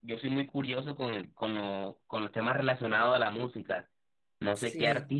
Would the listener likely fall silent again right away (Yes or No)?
Yes